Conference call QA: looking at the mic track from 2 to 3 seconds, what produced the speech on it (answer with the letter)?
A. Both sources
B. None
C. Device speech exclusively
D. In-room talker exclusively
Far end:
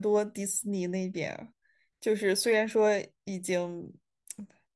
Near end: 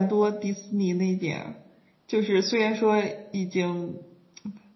C